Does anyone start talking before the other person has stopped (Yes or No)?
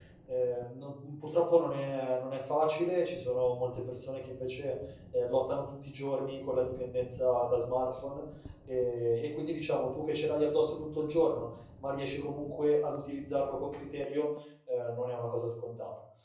No